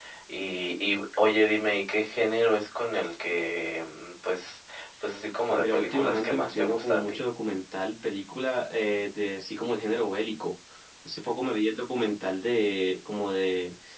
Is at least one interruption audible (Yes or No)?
Yes